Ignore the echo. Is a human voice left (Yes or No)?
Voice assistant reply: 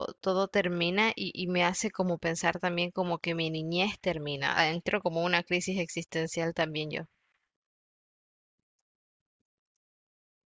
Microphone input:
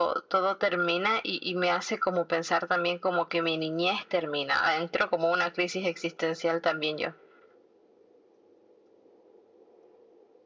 No